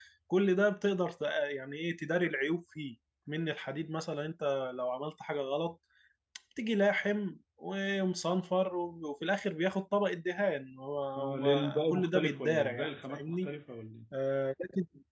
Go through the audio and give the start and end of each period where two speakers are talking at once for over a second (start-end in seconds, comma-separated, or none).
11.2-13.5